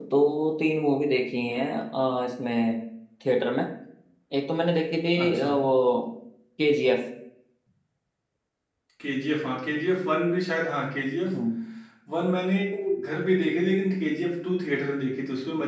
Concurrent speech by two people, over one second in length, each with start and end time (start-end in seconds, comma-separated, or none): none